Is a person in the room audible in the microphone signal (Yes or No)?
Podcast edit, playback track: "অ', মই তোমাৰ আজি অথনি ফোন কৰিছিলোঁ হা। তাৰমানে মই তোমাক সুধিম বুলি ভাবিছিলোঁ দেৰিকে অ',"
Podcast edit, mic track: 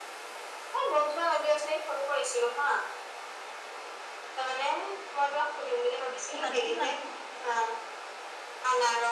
Yes